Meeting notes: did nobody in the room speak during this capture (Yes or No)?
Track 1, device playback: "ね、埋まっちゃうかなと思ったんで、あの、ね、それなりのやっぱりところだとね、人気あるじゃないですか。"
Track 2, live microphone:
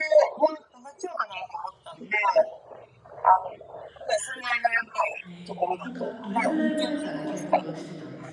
No